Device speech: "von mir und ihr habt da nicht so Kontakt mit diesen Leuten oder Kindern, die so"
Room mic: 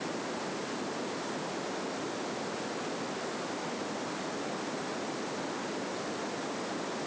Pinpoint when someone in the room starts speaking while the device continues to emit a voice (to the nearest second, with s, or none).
none